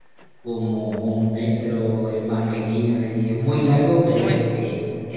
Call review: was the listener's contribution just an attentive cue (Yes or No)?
Yes